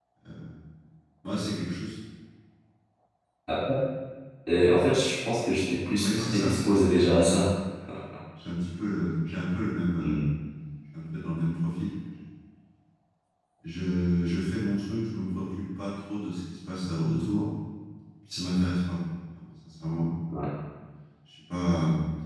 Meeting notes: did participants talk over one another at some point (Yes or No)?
Yes